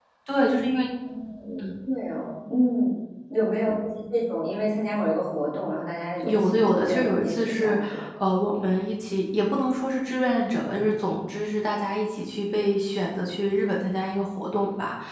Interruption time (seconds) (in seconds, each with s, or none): 6.2 s